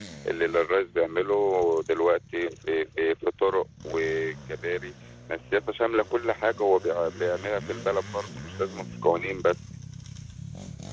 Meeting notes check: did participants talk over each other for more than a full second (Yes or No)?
No